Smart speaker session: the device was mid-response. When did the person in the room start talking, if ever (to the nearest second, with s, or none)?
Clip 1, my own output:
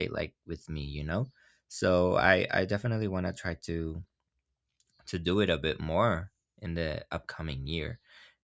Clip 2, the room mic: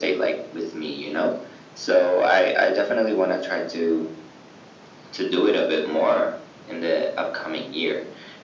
none